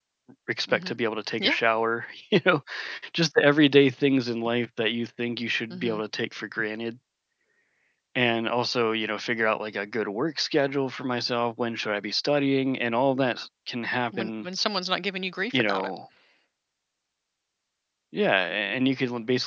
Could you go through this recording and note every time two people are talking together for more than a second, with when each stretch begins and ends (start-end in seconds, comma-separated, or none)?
none